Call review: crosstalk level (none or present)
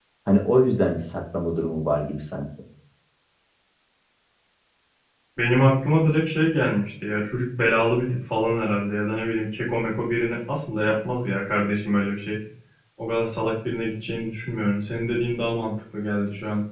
none